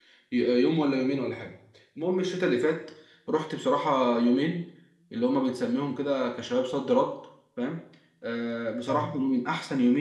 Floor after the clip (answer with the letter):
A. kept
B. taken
A